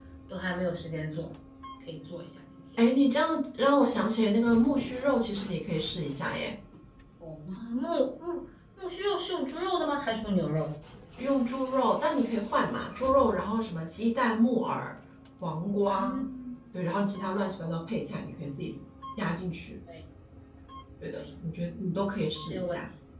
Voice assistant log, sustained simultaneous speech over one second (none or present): none